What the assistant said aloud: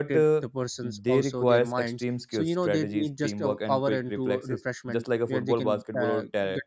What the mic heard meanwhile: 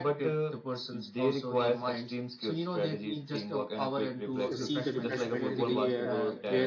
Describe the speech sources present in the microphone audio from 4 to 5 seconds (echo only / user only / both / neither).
both